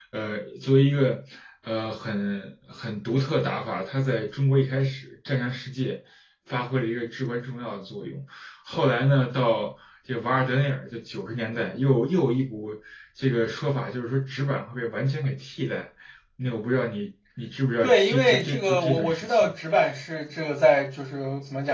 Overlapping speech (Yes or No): Yes